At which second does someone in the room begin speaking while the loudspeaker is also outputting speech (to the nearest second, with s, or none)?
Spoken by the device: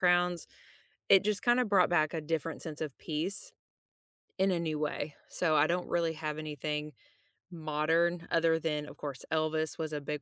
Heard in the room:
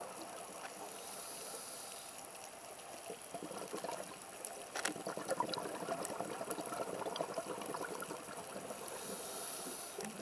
none